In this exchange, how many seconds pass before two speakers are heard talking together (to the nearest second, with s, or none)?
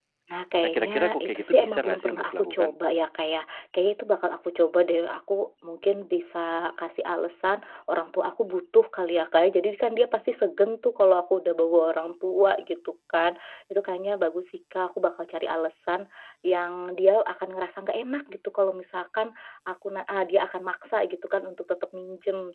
1 s